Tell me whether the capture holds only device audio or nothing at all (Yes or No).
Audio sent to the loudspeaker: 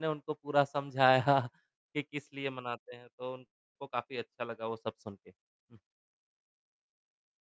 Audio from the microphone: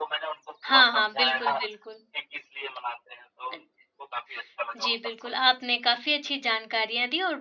No